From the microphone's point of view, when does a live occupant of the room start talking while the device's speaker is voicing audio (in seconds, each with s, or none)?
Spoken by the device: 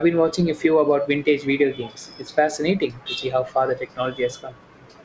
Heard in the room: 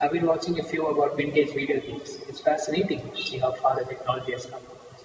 none